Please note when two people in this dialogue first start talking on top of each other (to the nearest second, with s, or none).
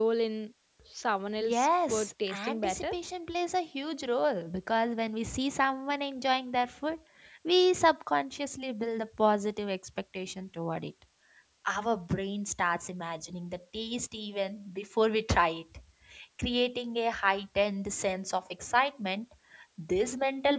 1 s